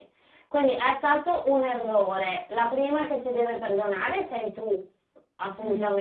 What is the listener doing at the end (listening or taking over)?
listening